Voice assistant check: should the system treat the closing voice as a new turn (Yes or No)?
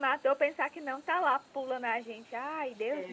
Yes